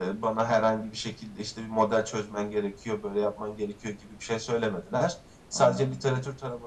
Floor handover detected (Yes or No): No